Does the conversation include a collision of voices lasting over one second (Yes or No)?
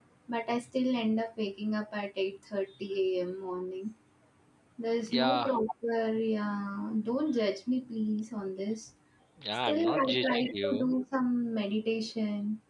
Yes